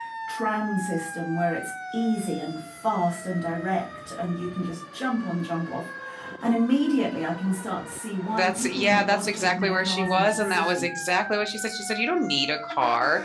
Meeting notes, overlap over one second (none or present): present